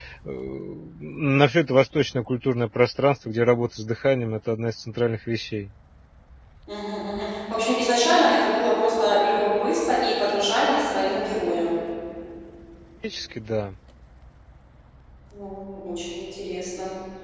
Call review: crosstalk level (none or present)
none